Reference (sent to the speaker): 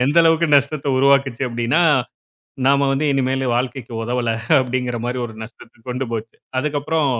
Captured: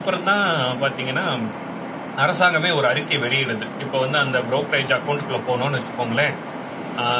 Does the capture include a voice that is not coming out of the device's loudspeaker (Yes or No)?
Yes